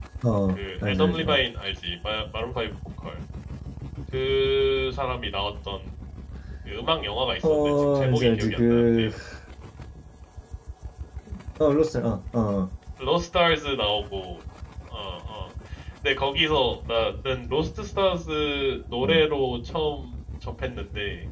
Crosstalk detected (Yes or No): Yes